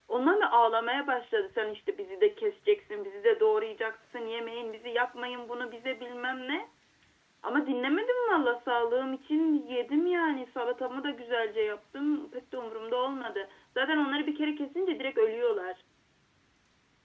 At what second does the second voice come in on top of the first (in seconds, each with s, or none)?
none